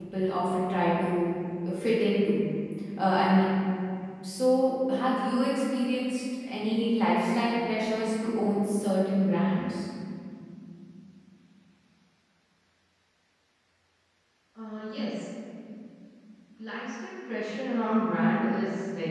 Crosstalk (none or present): none